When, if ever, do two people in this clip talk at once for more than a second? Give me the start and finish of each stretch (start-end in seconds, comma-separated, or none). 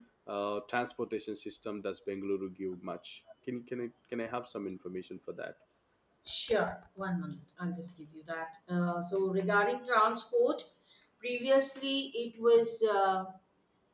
none